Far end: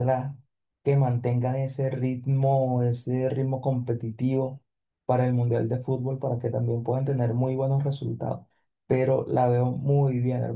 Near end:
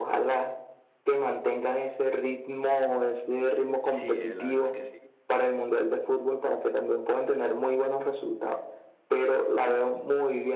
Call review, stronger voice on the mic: echo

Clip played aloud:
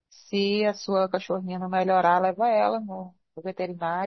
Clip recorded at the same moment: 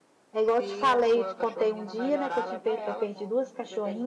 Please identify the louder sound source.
user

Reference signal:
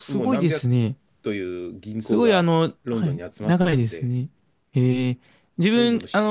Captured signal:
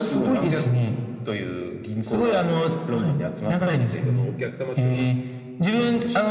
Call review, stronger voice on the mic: echo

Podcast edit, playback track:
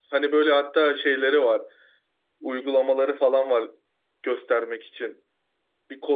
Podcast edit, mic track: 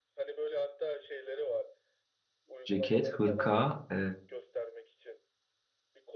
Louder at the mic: user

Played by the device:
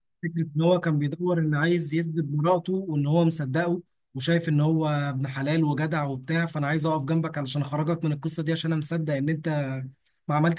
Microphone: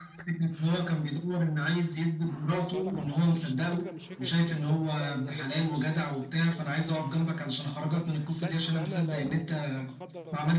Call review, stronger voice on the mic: echo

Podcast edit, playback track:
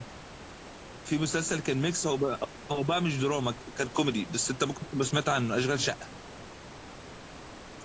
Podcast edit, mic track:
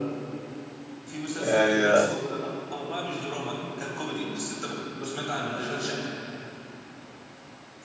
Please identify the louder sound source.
user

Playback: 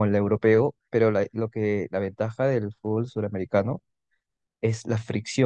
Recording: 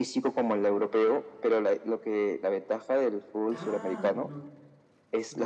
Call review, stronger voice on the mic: echo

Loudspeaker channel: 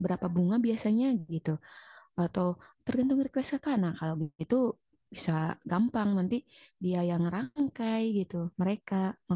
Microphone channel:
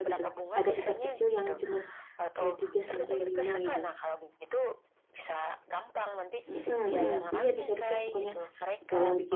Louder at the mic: user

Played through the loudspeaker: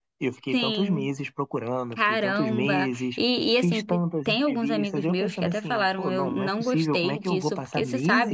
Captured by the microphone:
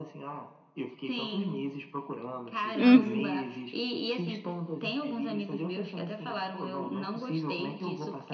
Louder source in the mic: user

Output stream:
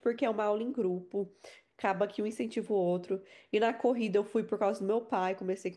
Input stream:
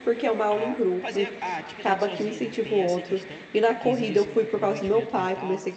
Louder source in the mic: echo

